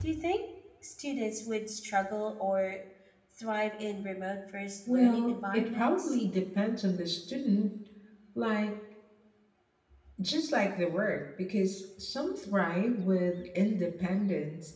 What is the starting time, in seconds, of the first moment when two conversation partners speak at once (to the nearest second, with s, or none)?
5 s